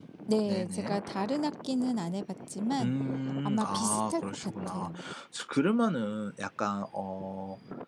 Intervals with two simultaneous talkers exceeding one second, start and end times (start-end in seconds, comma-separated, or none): 3.4-4.9